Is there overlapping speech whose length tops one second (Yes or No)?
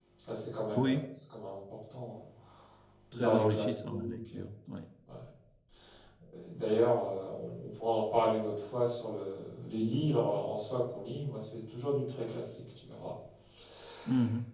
Yes